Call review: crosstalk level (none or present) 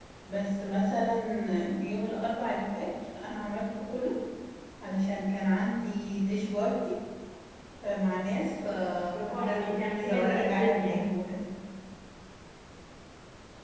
present